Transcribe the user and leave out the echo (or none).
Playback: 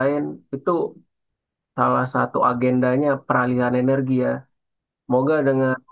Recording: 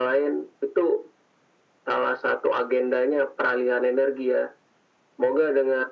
none